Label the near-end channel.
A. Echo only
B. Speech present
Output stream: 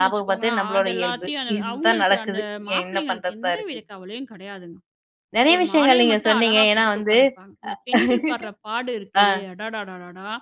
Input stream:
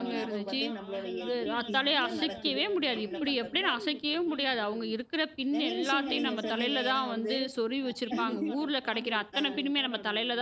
B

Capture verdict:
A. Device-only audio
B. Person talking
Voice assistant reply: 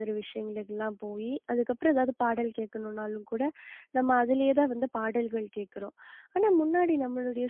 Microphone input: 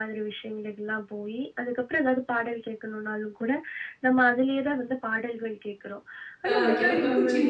B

